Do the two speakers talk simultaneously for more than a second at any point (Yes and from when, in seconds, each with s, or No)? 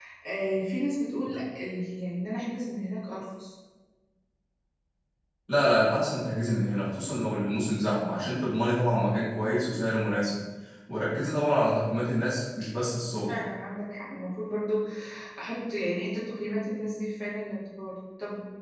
No